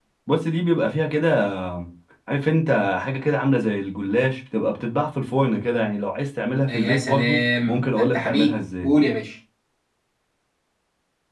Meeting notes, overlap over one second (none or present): present